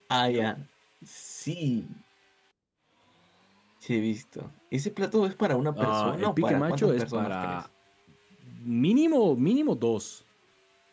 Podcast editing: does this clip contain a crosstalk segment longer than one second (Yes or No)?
Yes